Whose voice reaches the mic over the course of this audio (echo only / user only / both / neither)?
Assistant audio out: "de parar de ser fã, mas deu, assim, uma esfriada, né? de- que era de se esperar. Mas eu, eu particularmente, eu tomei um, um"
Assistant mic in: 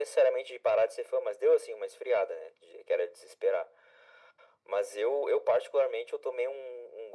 echo only